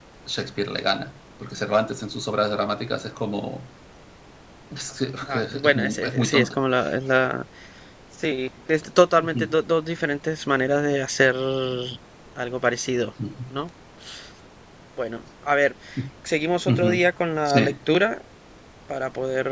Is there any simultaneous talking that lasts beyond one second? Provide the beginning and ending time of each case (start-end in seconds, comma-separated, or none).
5.3-6.6